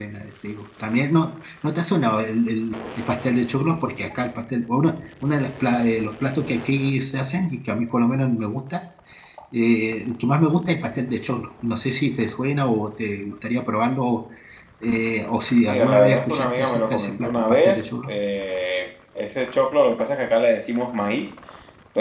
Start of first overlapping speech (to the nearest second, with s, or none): 16 s